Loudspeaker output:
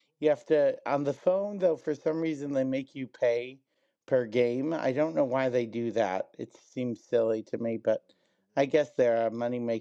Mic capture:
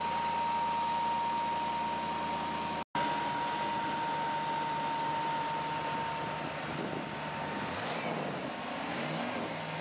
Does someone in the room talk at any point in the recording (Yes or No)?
No